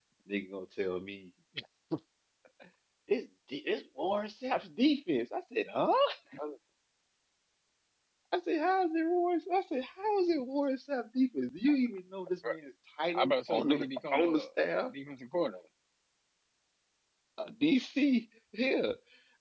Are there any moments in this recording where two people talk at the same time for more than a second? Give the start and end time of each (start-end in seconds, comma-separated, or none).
13.2-14.4